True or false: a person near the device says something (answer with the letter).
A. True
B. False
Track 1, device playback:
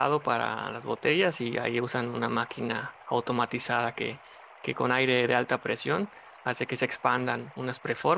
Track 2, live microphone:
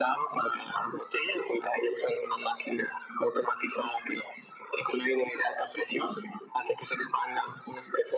B